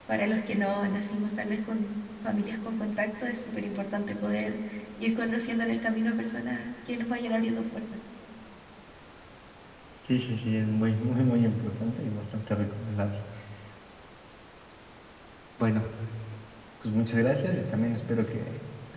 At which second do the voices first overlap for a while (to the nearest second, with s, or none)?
none